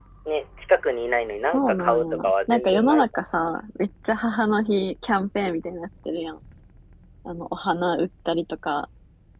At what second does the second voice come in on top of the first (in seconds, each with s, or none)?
1.5 s